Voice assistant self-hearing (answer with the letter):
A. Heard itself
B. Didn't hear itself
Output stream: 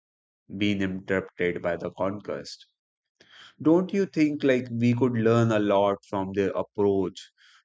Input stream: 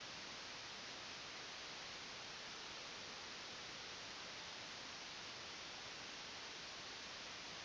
B